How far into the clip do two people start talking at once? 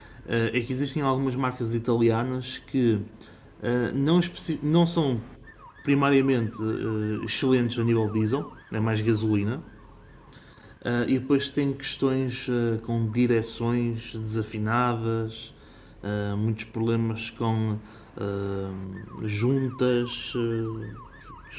none

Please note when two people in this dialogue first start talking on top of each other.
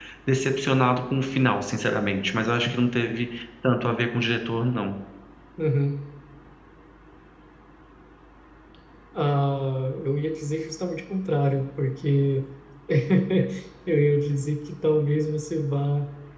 none

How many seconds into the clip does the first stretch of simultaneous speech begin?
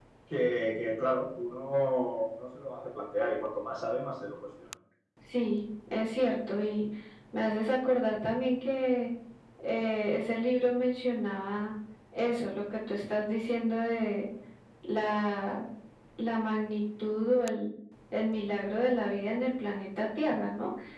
none

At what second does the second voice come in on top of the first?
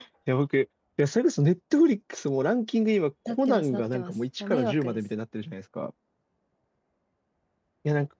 3.3 s

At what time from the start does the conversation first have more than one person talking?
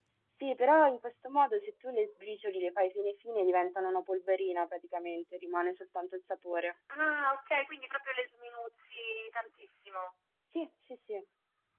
none

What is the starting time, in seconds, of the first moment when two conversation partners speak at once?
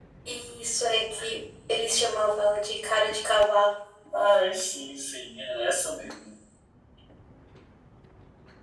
none

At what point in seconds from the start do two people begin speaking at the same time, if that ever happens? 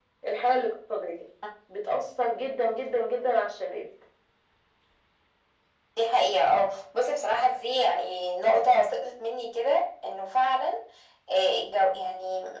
none

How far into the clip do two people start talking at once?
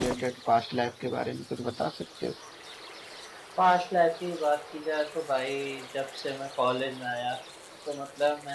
none

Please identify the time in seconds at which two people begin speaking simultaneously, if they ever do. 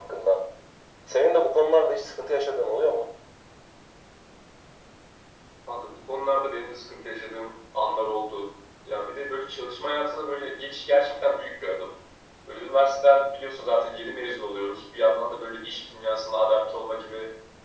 none

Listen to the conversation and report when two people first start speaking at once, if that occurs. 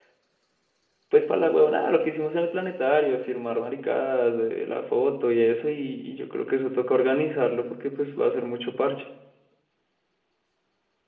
none

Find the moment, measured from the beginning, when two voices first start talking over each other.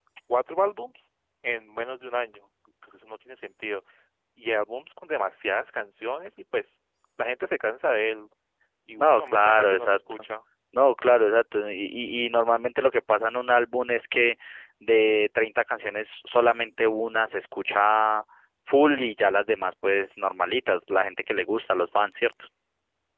9.0 s

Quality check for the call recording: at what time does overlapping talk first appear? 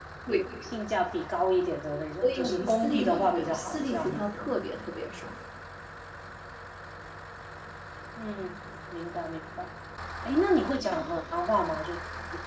2.2 s

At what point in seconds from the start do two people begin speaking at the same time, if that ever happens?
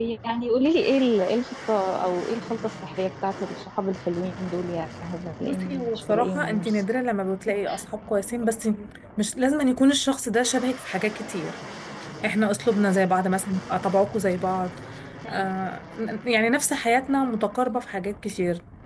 5.4 s

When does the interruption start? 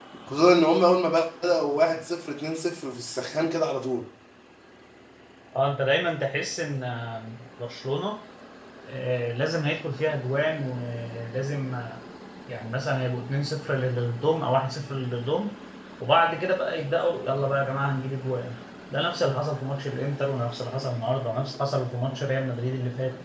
none

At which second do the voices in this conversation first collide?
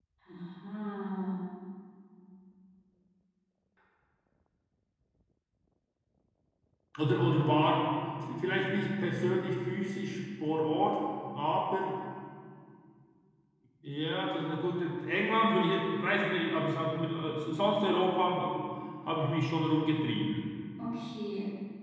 none

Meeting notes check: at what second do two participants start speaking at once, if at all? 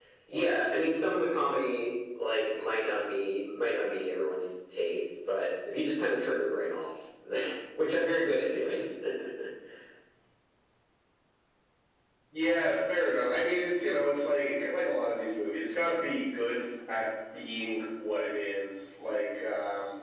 none

